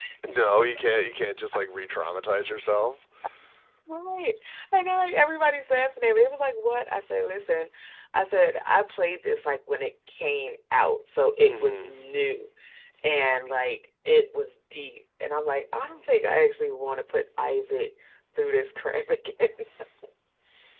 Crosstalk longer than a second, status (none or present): none